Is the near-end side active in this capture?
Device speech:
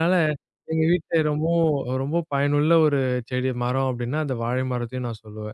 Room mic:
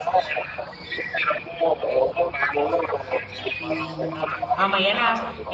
Yes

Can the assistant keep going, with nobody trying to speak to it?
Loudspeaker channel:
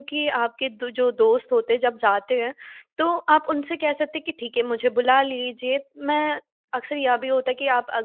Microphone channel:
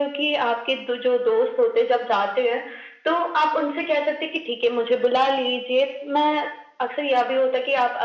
Yes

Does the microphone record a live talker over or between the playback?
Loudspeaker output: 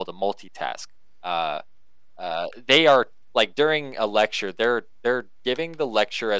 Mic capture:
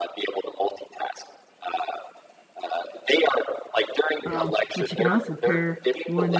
Yes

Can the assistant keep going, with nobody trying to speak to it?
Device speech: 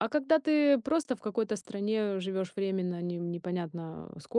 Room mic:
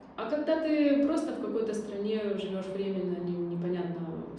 Yes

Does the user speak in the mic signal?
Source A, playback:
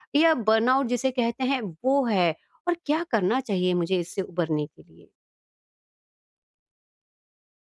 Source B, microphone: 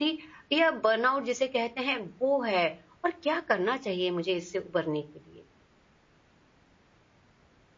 No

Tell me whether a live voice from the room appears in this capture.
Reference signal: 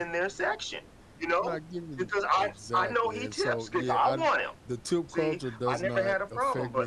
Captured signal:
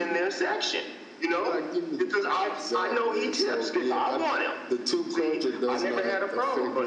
No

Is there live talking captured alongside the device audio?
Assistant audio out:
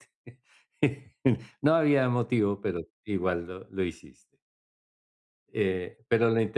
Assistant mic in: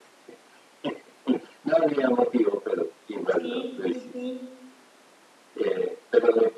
Yes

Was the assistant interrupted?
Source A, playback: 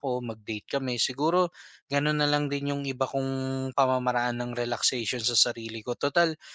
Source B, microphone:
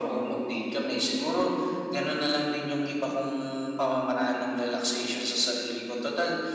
No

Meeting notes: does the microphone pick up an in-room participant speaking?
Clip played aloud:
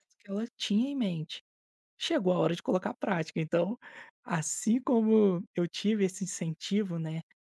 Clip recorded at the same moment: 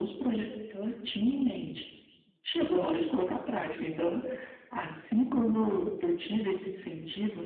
No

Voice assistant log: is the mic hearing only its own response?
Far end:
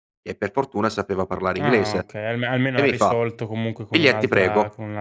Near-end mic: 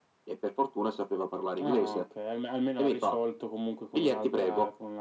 Yes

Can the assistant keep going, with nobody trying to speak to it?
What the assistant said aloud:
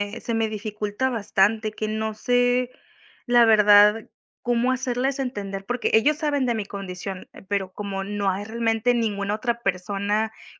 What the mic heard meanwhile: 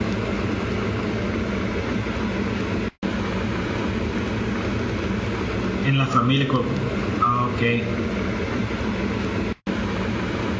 No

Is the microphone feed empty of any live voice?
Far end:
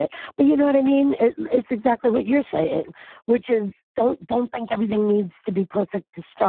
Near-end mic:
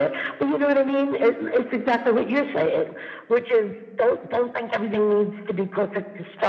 Yes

